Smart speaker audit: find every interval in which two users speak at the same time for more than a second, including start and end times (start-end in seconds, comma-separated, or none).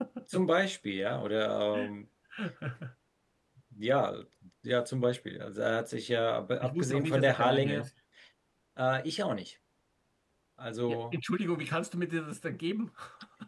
6.6-7.9